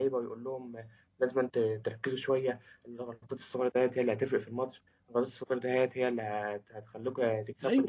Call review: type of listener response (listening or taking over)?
taking over